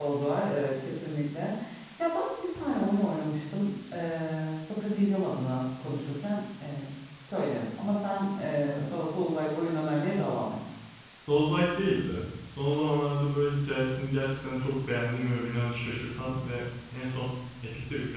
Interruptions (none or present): none